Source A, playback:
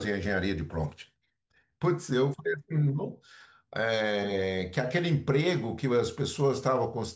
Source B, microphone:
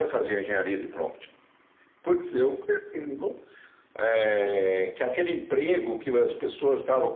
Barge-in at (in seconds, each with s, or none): none